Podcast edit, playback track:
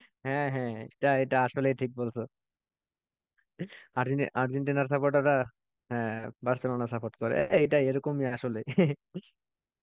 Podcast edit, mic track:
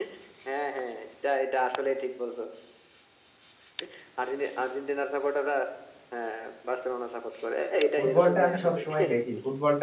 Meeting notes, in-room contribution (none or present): present